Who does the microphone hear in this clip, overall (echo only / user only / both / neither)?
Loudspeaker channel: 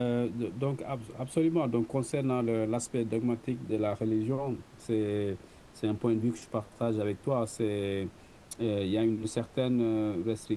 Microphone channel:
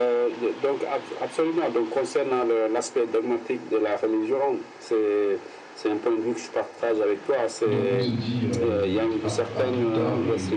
both